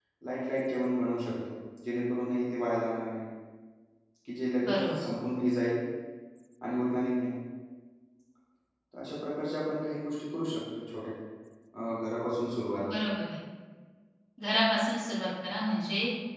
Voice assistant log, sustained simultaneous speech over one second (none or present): none